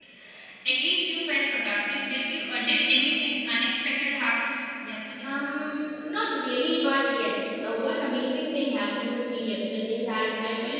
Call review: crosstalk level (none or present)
none